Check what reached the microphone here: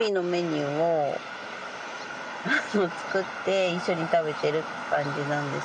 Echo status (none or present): present